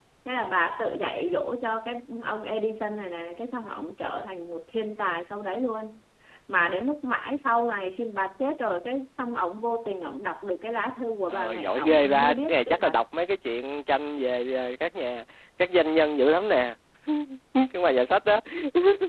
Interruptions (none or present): present